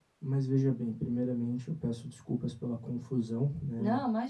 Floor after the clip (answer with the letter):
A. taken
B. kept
B